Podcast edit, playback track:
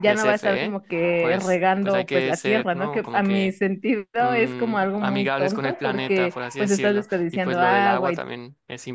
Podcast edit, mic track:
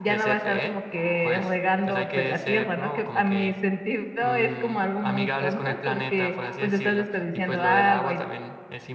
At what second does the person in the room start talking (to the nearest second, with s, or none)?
none